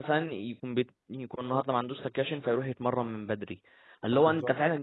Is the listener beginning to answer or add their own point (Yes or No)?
No